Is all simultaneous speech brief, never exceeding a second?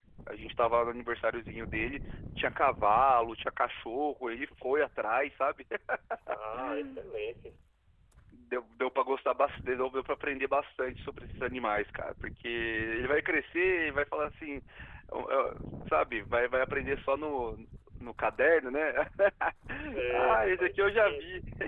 No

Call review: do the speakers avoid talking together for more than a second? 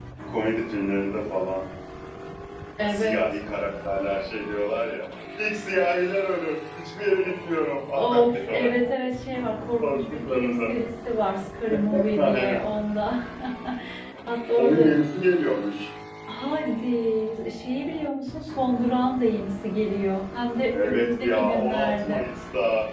No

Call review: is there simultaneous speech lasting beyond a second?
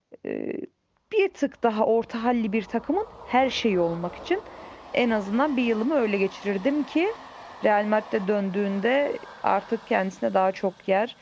No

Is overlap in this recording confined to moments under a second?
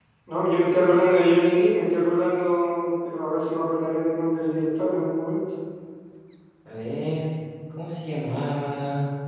Yes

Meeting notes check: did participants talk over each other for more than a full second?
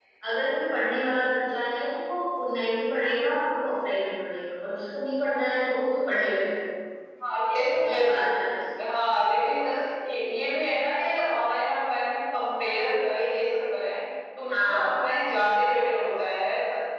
No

